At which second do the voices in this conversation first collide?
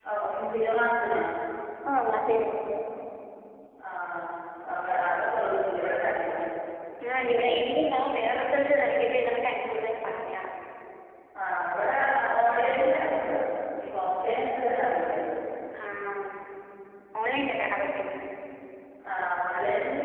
none

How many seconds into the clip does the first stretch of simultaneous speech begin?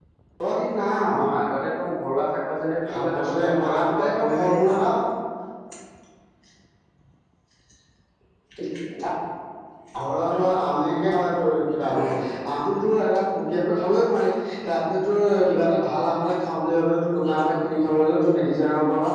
2.9 s

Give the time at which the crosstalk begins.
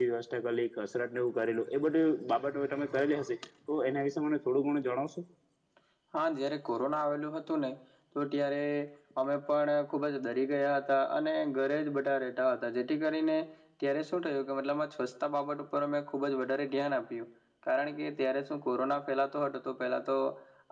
none

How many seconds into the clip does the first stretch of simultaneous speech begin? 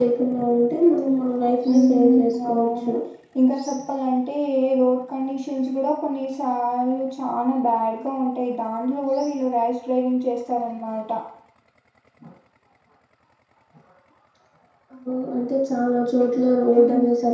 1.7 s

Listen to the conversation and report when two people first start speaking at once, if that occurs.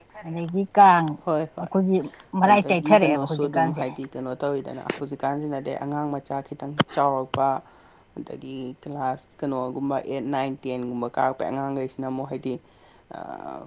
2.5 s

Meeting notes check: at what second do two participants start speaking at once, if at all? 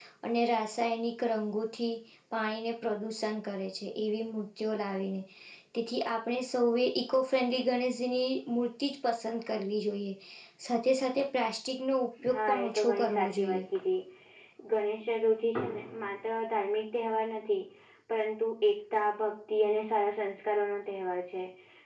12.2 s

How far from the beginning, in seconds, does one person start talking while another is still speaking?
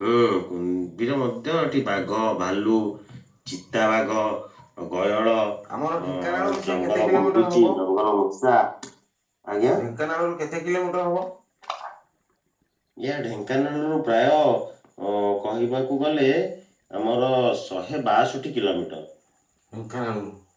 6.0 s

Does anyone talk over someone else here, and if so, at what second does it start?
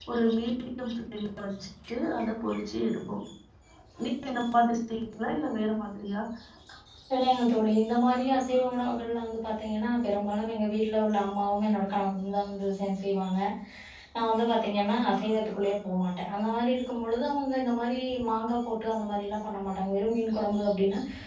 none

